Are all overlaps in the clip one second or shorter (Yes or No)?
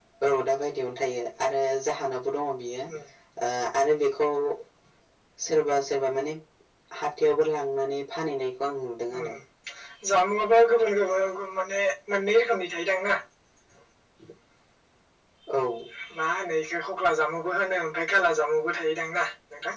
Yes